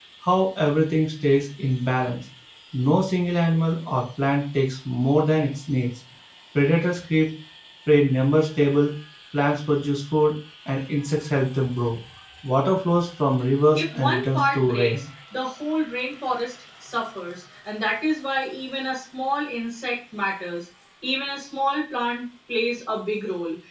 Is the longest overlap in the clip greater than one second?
Yes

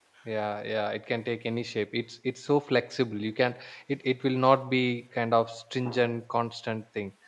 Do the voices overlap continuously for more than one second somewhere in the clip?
No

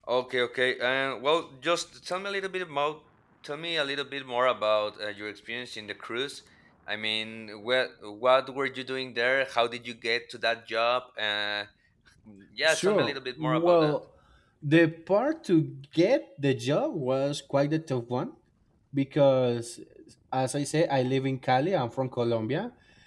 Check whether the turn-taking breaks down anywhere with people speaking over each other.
Yes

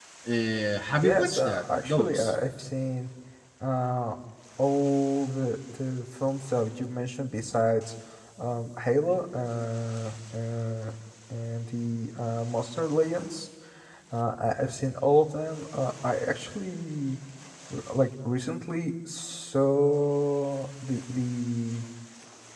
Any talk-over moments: Yes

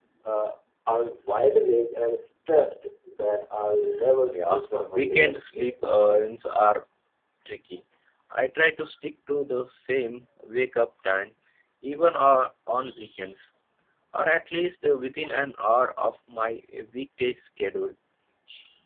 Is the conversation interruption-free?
No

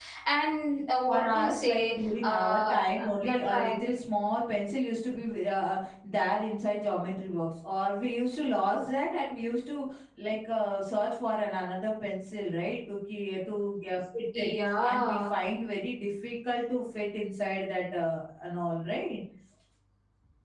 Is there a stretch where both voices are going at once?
Yes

